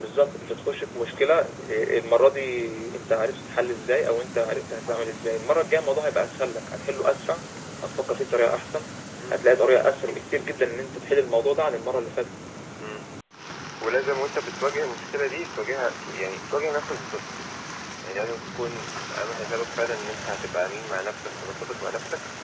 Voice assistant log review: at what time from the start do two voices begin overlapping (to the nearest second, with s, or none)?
none